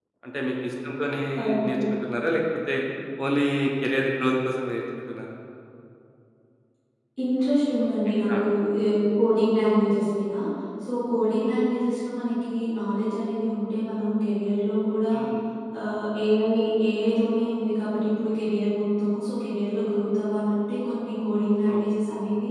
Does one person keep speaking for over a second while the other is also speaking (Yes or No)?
No